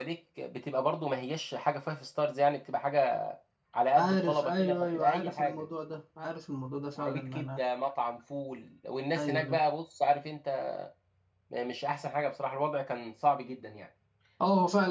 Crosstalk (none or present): present